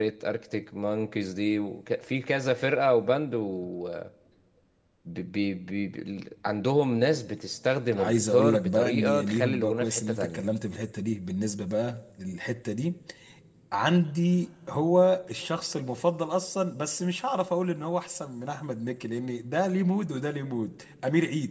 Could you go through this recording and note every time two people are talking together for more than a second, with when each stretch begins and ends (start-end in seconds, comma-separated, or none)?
7.9-10.5